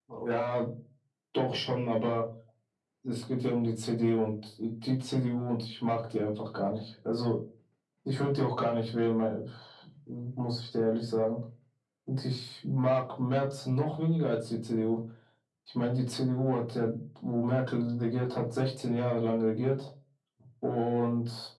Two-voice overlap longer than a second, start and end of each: none

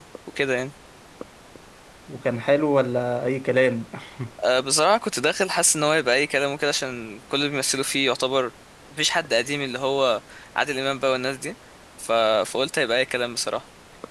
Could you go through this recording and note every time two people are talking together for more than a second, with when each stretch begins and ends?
none

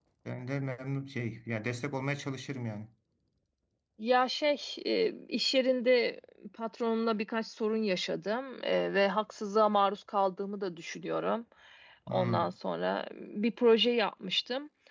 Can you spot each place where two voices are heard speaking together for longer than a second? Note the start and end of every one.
none

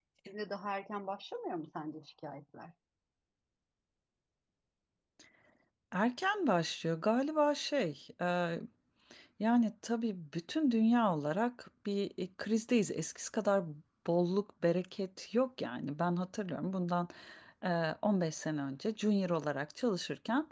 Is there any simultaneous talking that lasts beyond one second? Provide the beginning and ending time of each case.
none

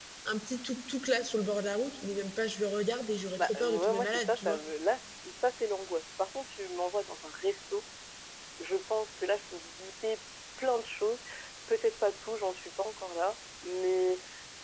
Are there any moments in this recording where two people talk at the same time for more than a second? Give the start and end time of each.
3.4-4.6

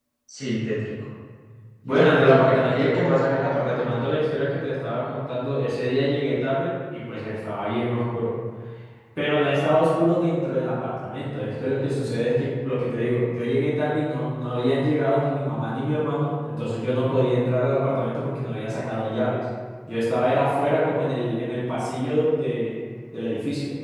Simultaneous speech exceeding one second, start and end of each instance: 1.9-4.2

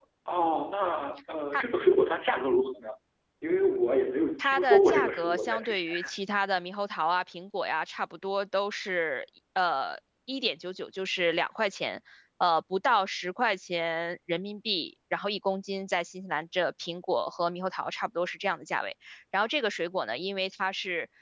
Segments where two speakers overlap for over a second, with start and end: 4.4-5.9

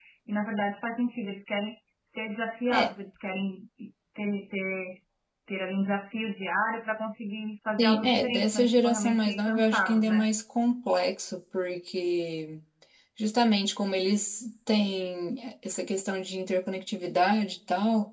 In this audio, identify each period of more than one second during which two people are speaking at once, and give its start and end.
7.8-10.3

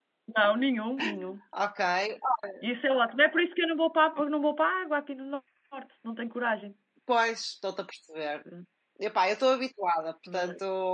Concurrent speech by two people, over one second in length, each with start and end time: none

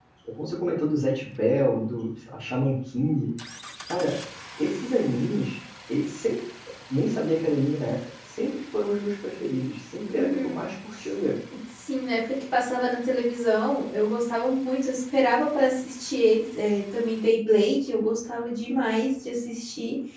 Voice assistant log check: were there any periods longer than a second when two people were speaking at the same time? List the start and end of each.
none

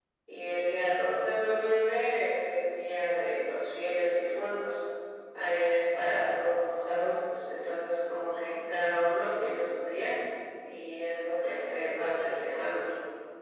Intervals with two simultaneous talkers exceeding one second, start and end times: 11.4-12.8

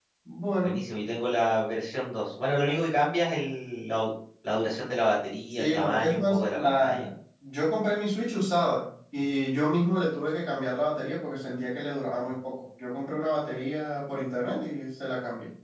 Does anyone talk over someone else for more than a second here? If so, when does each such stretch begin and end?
5.5-7.0

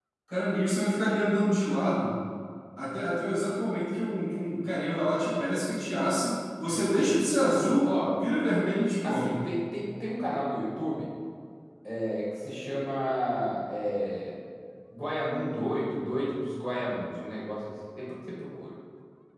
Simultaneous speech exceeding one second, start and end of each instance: none

